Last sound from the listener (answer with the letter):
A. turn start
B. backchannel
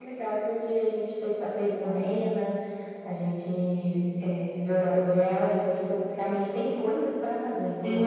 A